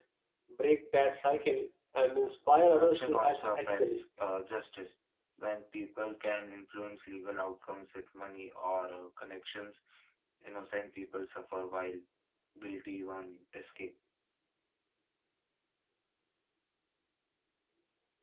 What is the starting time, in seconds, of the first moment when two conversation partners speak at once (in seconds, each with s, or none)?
2.2 s